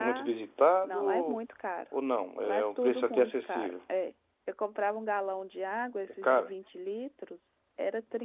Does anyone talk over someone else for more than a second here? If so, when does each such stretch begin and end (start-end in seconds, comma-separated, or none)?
2.4-3.7